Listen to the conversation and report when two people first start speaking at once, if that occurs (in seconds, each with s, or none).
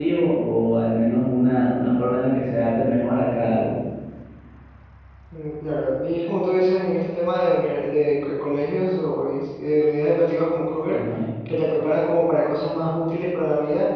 none